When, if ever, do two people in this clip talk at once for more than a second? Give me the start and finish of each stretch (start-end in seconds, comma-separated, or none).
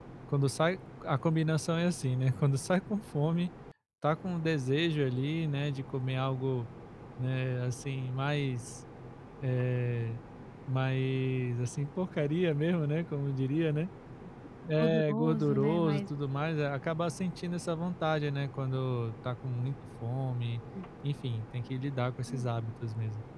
14.8-16.0